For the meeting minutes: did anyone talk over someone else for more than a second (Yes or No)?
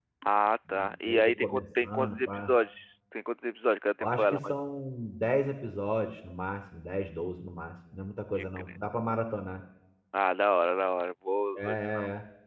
Yes